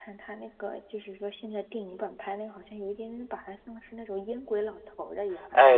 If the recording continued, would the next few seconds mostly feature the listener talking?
Yes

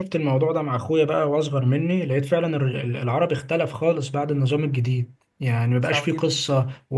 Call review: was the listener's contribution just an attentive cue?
Yes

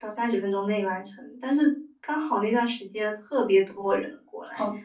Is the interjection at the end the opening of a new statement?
Yes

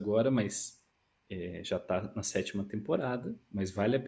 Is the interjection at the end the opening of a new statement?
No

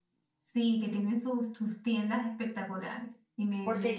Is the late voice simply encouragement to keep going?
No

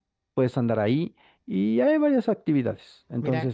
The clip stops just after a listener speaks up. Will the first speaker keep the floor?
Yes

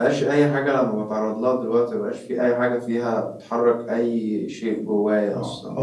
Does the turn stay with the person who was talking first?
No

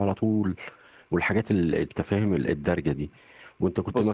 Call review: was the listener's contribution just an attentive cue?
Yes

